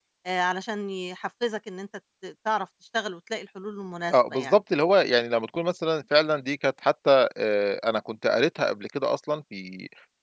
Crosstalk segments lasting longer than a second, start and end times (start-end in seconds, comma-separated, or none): none